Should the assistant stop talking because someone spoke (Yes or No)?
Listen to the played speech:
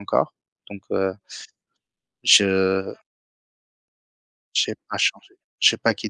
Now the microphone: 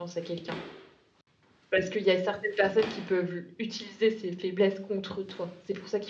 Yes